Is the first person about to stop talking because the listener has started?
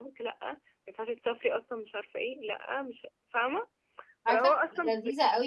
Yes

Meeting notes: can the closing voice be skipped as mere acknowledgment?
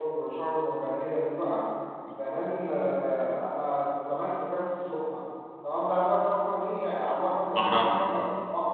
Yes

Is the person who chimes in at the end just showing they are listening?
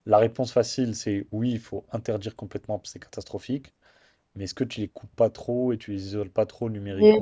No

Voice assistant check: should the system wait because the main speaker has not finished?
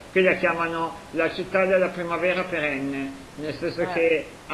Yes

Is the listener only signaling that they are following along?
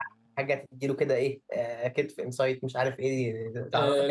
No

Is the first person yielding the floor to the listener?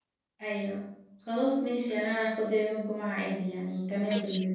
Yes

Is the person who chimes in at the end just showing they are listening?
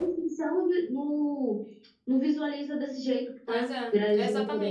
No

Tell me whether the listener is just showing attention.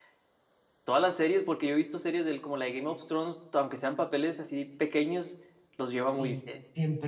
No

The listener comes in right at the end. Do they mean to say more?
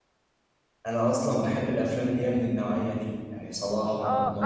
Yes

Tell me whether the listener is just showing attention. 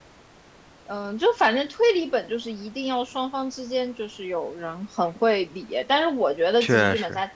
Yes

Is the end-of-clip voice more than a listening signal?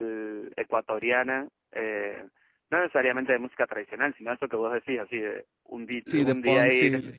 Yes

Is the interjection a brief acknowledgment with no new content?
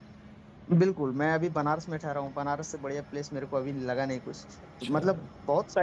Yes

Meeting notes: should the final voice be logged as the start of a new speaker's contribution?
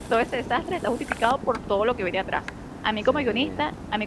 No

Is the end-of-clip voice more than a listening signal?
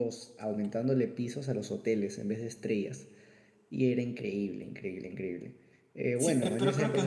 Yes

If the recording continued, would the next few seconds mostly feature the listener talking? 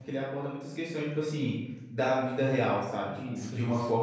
No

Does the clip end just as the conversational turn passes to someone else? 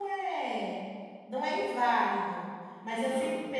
No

